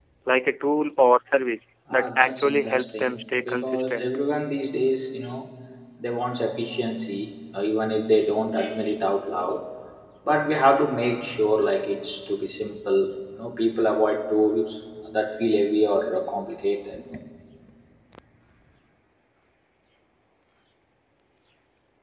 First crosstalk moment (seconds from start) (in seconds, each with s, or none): 1.9 s